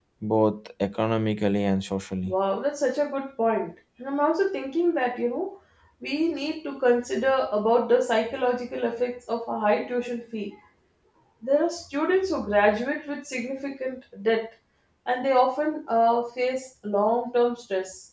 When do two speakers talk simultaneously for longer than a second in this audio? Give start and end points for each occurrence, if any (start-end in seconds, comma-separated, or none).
none